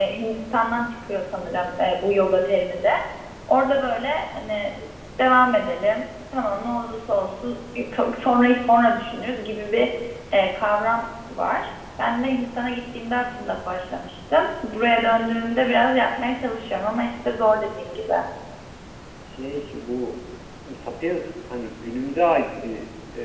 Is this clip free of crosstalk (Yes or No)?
Yes